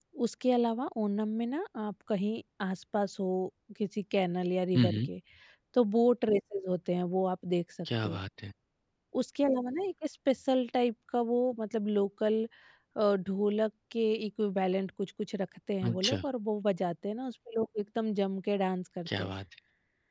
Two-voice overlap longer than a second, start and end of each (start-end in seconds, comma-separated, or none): none